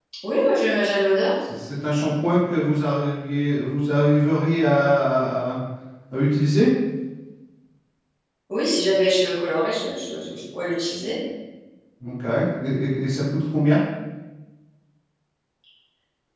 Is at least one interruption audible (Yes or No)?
No